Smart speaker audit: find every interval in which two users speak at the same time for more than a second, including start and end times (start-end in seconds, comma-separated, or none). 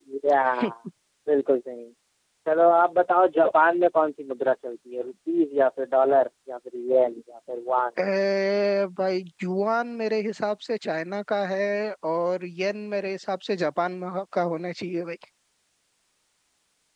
none